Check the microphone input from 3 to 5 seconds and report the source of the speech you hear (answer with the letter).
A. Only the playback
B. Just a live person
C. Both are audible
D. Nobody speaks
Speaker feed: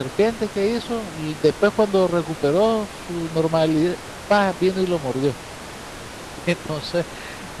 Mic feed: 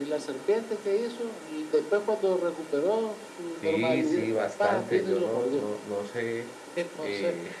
C